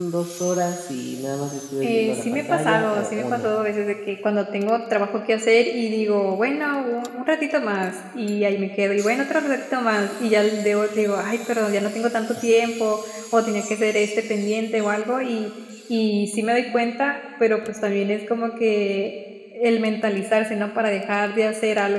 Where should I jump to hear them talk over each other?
1.8 s

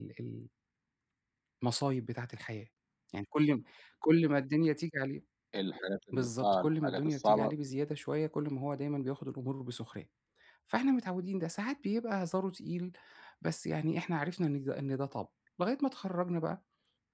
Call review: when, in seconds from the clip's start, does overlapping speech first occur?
6.1 s

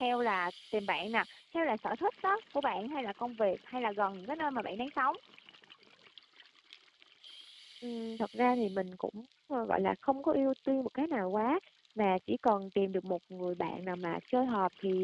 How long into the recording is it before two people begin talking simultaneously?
none

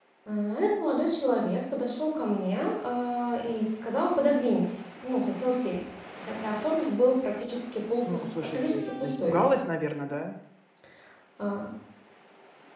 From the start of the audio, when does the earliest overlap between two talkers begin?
8.1 s

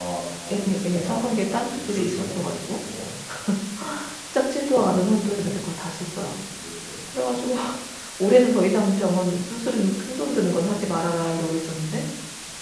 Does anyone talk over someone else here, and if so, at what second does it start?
0.5 s

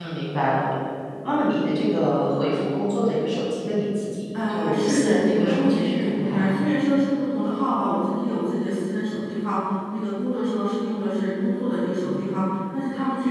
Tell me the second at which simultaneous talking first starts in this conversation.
4.3 s

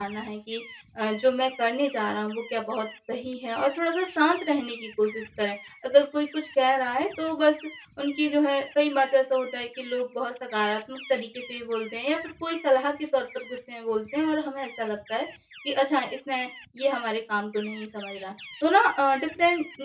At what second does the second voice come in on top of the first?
none

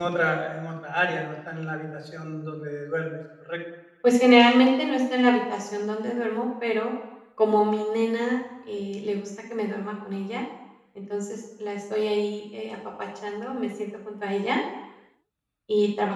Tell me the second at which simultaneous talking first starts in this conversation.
none

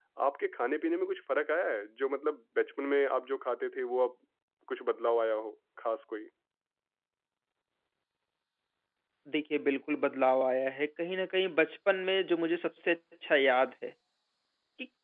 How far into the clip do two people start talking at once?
none

